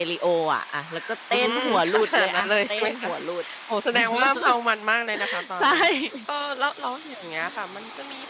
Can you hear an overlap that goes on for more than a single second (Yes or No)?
Yes